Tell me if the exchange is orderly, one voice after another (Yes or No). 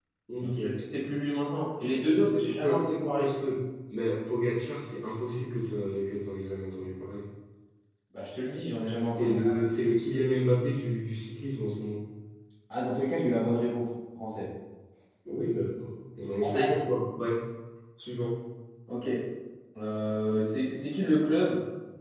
No